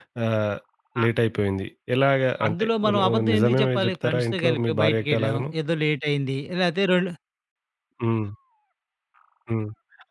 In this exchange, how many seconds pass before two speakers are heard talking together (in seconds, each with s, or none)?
2.4 s